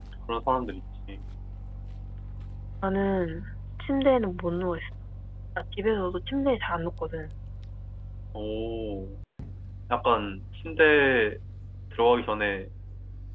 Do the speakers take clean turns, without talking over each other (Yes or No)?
Yes